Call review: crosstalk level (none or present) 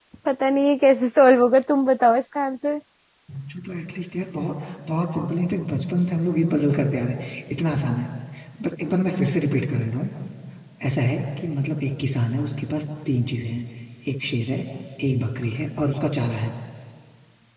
none